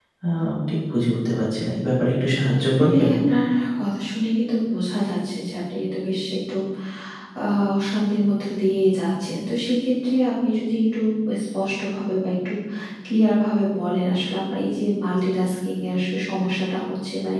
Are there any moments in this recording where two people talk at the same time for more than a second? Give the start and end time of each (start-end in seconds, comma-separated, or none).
none